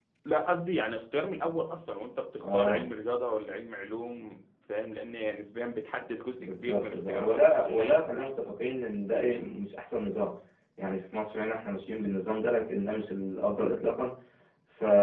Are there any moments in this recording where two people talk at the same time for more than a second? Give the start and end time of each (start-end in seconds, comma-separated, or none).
6.3-8.1